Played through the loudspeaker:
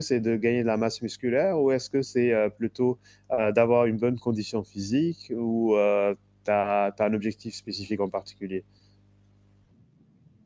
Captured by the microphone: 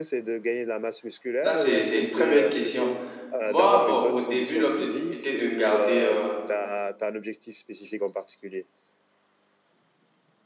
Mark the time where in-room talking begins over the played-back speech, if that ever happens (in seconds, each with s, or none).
1.4 s